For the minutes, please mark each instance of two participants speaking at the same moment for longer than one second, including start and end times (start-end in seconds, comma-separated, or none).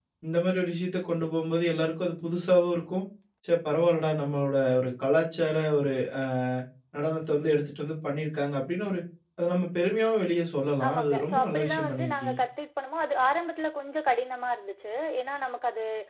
10.9-12.4